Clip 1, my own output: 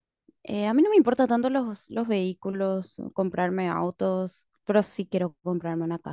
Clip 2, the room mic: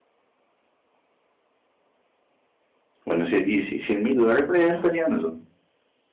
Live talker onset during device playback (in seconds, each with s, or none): 3.0 s